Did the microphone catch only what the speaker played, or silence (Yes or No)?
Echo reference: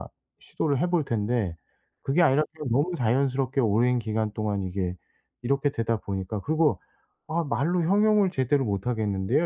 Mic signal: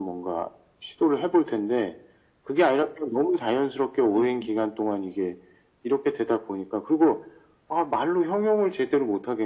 No